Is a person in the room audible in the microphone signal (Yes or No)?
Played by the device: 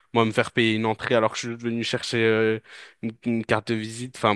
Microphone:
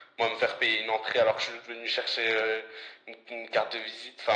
No